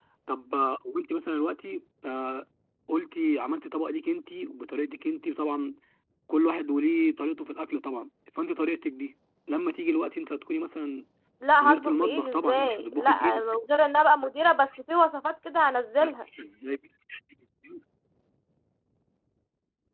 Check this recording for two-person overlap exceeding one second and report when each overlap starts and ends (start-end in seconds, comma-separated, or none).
11.6-13.4